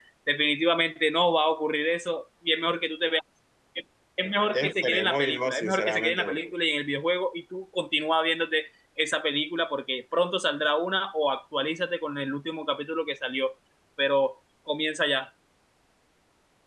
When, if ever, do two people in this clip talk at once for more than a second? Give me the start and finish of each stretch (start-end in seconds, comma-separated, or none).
4.5-6.5